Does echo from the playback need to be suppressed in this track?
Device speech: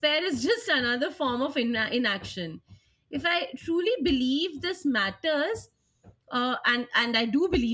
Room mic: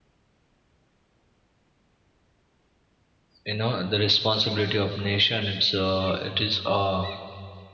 No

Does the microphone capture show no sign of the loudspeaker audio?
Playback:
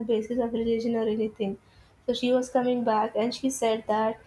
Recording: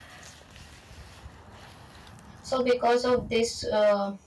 Yes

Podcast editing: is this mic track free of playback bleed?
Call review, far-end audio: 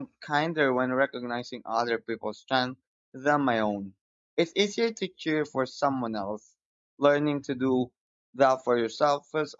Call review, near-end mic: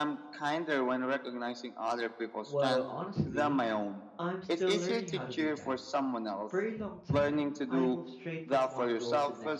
No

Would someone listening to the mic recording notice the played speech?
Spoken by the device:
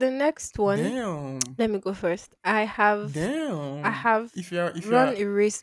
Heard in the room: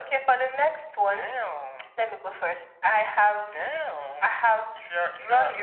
Yes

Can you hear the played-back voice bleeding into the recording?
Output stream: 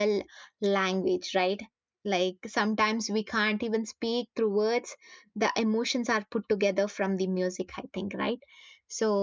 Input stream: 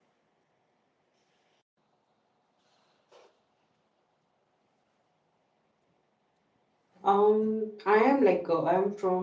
No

